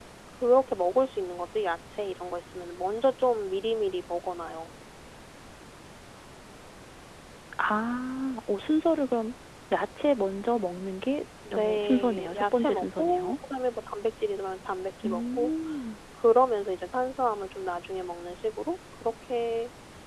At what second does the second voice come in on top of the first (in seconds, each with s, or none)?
11.5 s